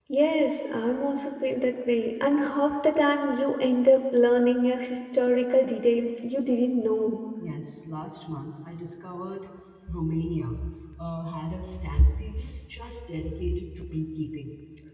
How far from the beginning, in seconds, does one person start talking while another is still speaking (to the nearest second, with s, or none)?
none